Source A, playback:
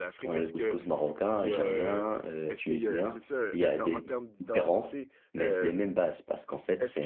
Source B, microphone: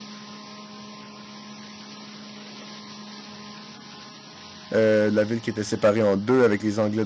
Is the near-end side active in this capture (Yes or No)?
Yes